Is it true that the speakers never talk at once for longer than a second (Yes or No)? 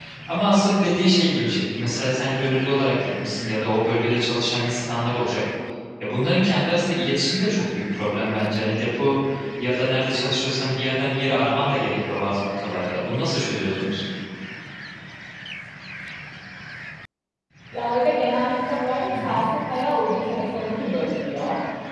Yes